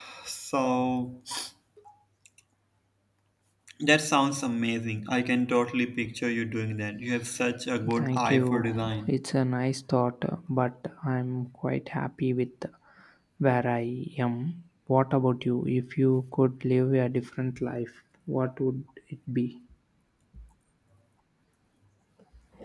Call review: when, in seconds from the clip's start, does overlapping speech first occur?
8 s

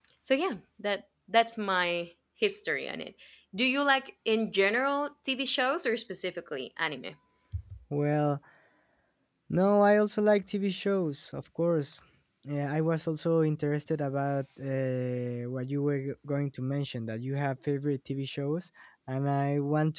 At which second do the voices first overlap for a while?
none

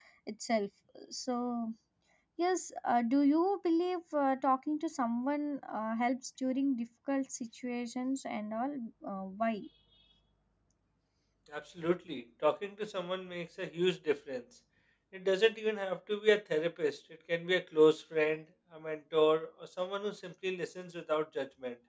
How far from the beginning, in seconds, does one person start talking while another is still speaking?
none

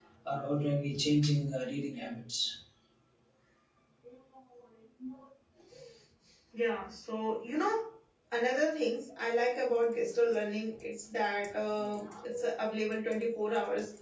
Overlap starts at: none

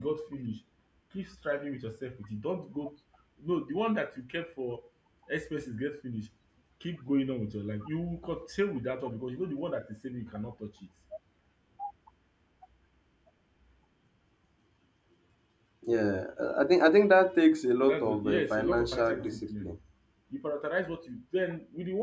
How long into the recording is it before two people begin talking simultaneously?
18 s

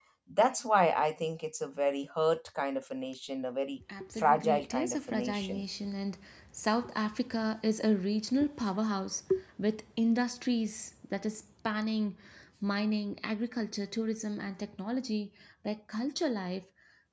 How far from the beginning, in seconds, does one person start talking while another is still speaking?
4 s

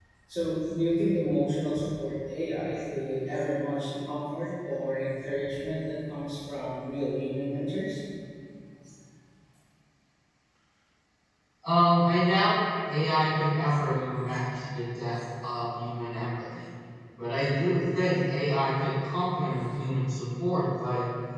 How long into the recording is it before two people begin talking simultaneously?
none

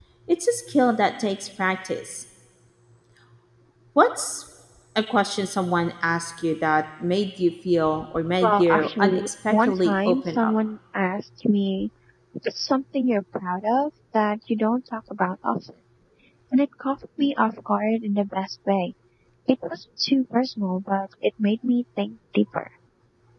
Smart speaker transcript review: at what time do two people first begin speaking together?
8 s

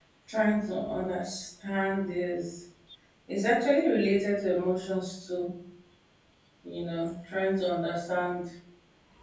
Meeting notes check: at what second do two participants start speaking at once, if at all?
none

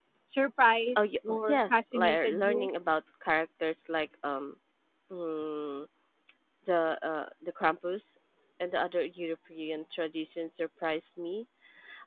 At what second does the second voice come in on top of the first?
1 s

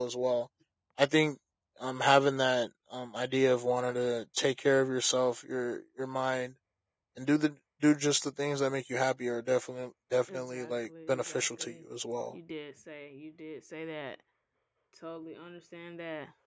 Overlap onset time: 10 s

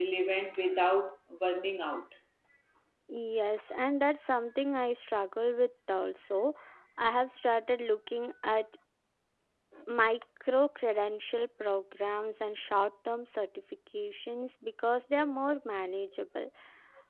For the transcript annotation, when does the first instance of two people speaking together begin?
none

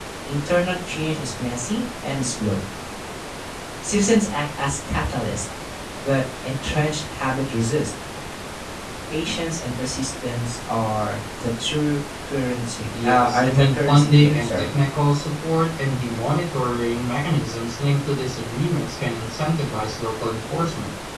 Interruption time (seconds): 13 s

